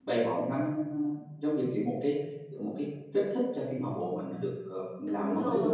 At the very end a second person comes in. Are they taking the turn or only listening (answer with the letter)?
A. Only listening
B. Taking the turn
B